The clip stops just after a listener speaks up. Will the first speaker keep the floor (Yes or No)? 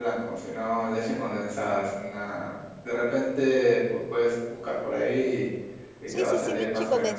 No